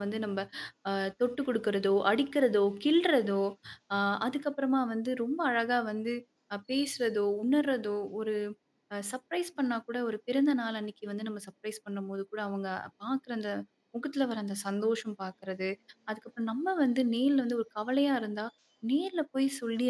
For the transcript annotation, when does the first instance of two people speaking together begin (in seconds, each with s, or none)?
none